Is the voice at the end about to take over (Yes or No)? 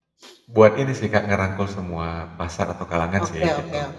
Yes